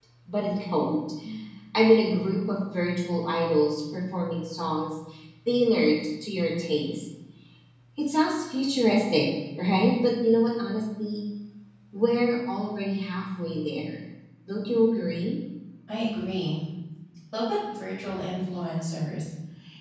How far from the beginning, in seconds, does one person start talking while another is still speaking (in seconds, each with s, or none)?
none